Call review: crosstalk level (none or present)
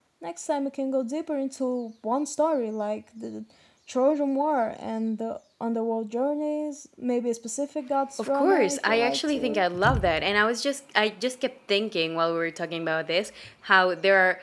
present